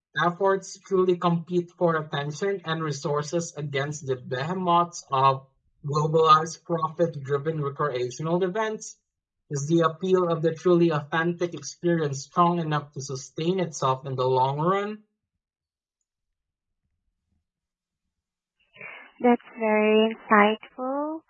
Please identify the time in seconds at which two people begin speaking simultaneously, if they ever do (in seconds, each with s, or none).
none